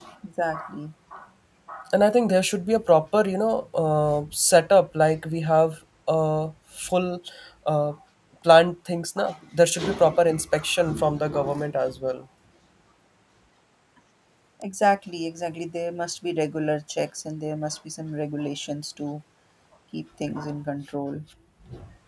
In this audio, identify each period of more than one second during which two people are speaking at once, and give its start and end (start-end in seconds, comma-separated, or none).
none